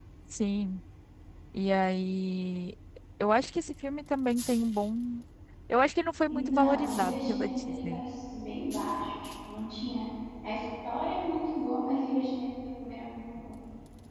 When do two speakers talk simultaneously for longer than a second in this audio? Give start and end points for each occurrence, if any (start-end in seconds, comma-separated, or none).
6.3-8.0